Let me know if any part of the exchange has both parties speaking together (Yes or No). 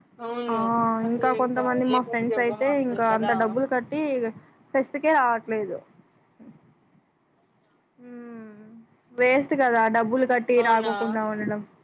Yes